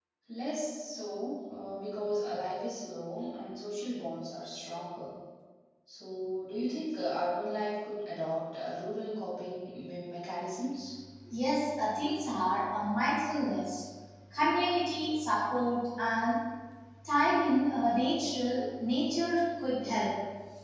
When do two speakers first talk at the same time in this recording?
none

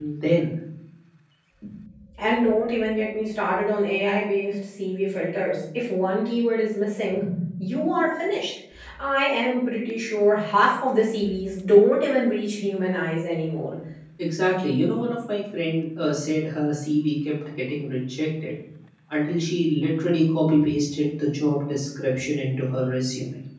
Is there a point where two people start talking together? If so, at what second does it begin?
none

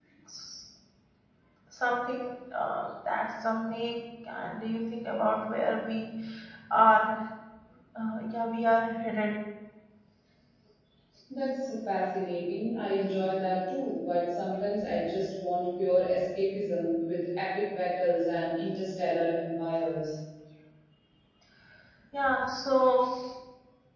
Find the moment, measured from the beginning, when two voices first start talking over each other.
none

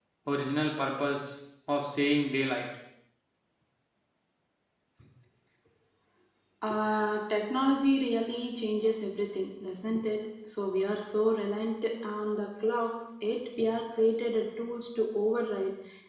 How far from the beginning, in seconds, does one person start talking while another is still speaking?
none

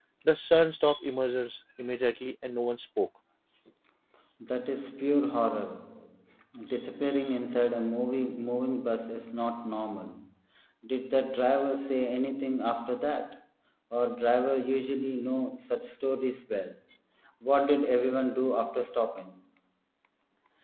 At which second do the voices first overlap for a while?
none

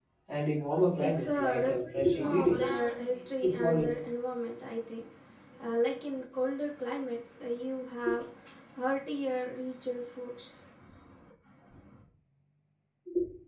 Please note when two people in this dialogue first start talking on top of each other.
1.0 s

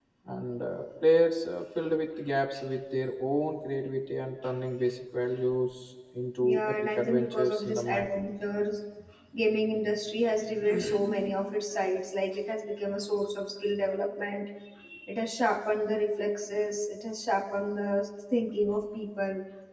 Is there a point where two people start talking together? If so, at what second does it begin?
6.4 s

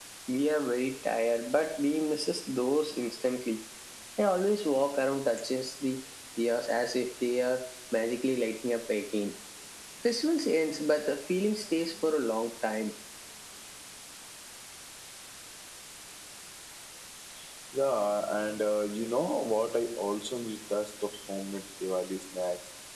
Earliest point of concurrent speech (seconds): none

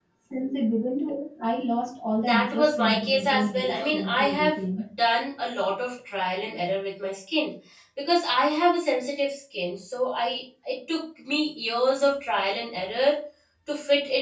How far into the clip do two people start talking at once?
2.2 s

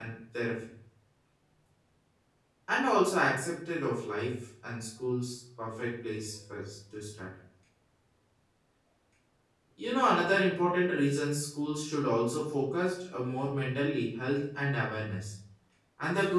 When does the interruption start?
none

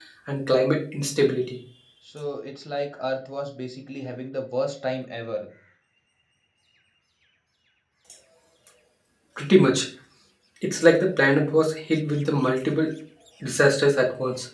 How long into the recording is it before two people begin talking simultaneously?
none

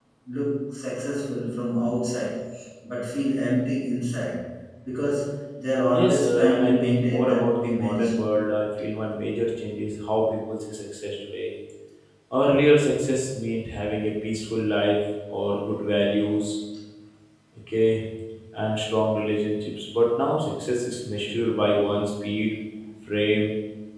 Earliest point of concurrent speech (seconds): 5.9 s

